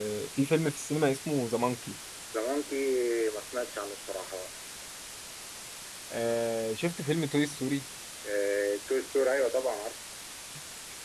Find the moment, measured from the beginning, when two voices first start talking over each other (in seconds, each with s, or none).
none